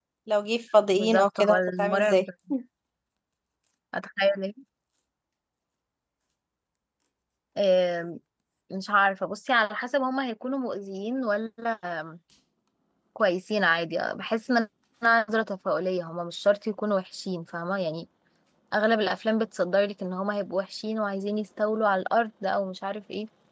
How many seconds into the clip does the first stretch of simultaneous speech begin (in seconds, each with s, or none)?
1.0 s